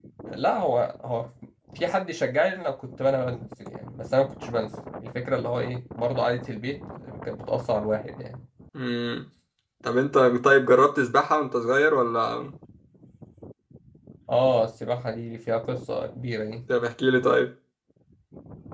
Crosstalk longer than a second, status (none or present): none